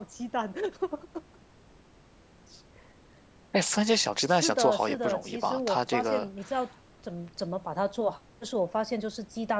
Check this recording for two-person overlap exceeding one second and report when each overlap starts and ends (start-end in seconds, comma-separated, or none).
4.3-6.3